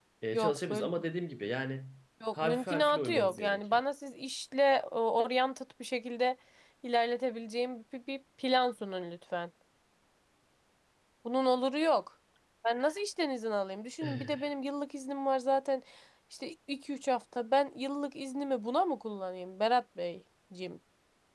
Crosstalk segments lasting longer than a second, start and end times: 2.4-3.8

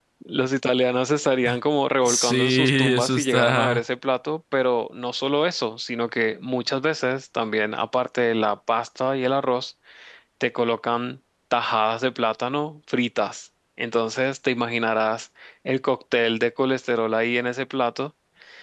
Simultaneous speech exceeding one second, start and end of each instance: 2.0-3.8

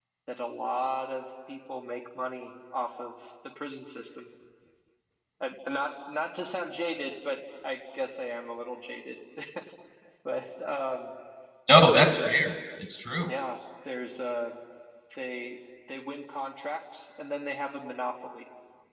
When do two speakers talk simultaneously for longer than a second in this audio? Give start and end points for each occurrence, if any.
none

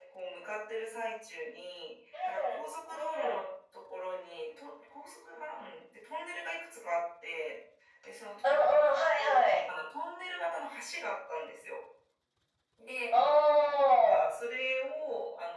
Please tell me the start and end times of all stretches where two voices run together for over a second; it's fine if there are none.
8.4-9.6

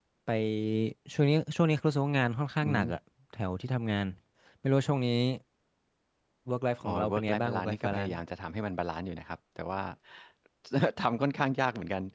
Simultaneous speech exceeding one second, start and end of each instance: 6.8-8.2

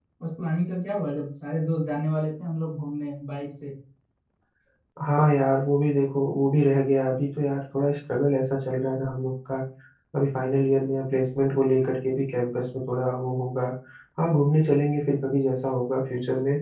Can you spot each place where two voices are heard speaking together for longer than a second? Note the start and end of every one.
none

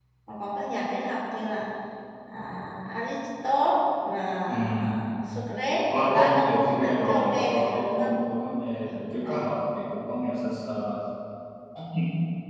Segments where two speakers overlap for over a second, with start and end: 6.0-8.1

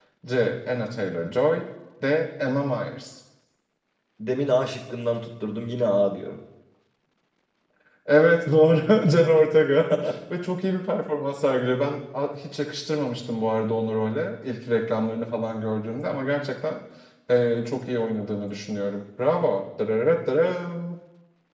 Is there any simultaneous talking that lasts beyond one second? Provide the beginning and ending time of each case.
none

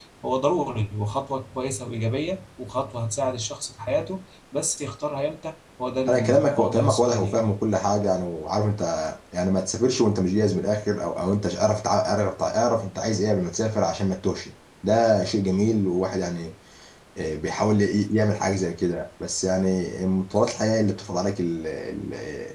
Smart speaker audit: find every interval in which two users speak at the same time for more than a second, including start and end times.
6.1-7.5

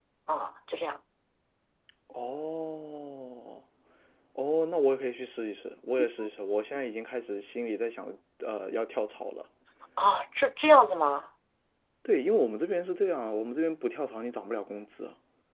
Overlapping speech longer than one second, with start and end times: none

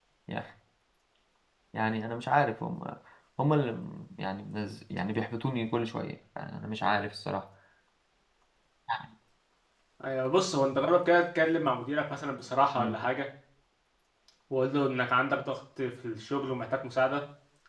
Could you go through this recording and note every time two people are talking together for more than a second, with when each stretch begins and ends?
none

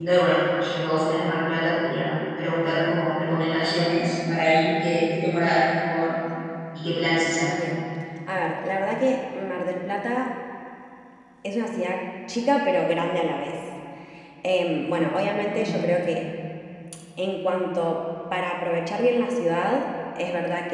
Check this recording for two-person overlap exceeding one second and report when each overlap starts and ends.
none

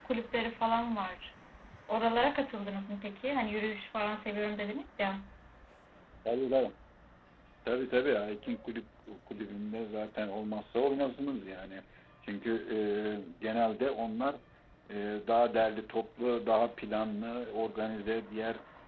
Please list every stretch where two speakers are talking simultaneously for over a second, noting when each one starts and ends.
none

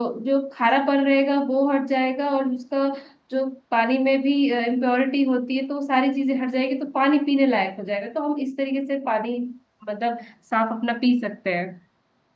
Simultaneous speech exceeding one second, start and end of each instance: none

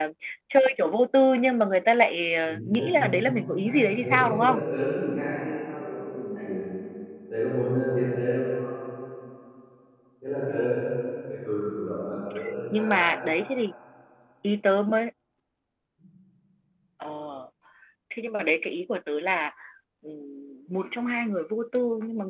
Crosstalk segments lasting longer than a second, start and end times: 2.5-4.6

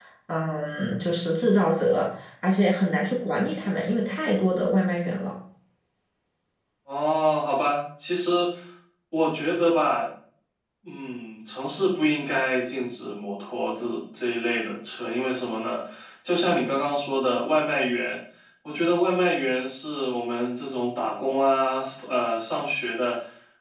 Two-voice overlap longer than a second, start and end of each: none

